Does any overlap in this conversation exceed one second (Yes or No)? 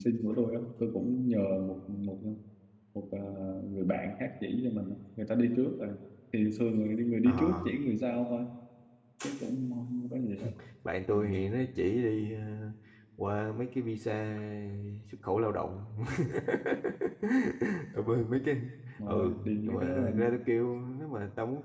Yes